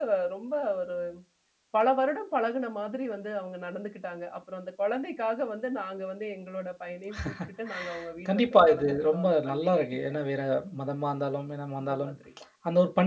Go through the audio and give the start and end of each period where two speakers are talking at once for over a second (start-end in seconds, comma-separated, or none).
8.3-9.8